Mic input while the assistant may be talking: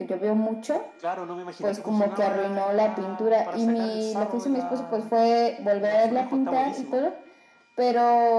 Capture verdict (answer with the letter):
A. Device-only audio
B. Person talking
A